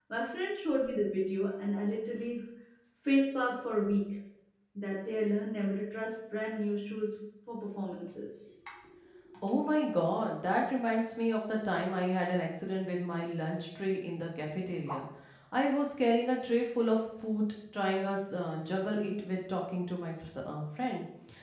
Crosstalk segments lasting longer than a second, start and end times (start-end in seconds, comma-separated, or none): none